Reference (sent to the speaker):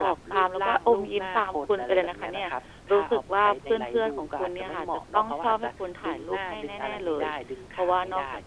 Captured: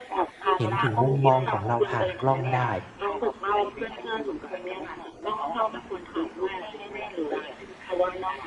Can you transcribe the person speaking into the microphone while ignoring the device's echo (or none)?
เห็นถึงมุมมองของเราผ่านกล้องได้